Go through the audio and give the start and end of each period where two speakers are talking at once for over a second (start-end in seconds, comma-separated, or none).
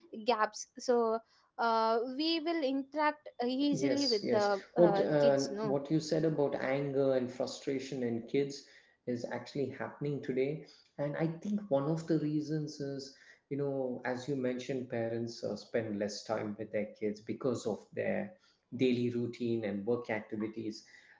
3.7-5.8